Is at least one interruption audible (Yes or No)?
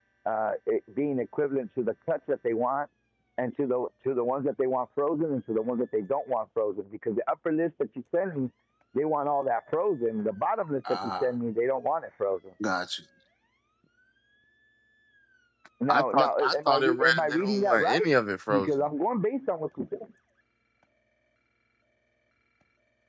Yes